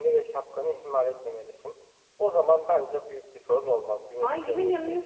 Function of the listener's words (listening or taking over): taking over